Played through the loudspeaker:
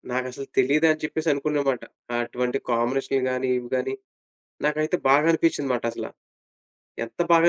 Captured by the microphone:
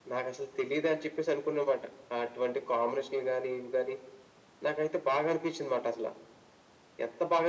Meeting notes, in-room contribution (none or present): none